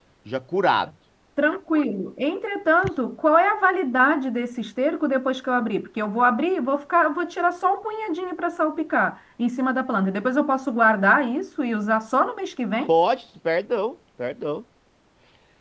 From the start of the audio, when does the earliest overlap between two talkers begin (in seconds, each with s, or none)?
none